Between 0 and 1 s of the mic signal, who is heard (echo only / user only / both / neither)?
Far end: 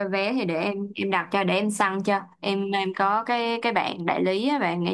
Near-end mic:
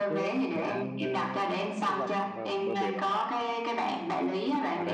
both